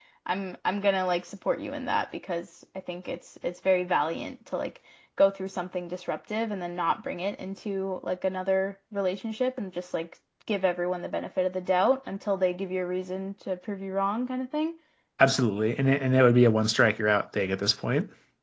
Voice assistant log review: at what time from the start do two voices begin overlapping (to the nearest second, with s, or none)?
none